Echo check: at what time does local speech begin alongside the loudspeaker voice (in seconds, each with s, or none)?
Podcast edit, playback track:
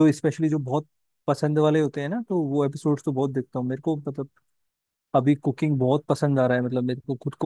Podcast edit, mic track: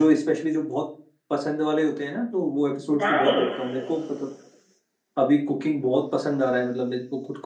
3.0 s